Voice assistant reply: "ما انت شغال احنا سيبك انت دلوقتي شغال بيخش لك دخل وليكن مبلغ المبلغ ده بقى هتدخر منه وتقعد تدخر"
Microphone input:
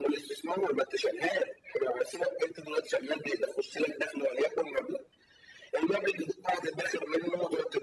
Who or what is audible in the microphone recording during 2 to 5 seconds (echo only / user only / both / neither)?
echo only